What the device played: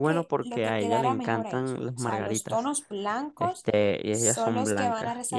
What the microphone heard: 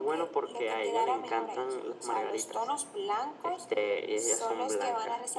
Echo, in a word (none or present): present